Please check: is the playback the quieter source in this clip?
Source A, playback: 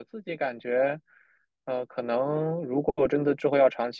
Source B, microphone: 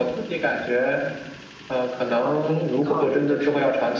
No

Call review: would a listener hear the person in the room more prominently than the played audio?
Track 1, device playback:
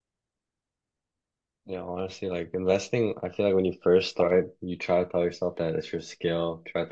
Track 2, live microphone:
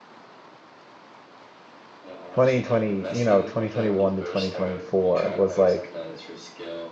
Yes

